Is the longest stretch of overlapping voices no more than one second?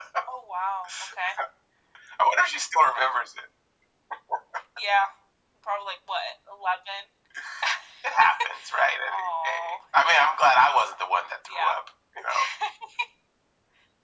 No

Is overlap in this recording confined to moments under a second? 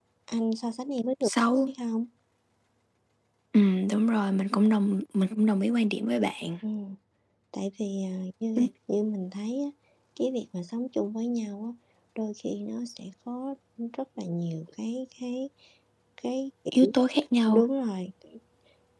Yes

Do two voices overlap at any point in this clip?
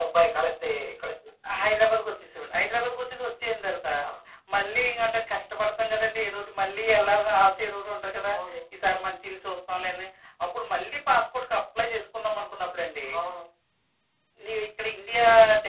No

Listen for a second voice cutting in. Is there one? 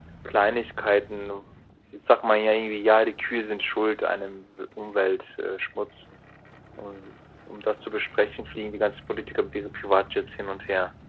No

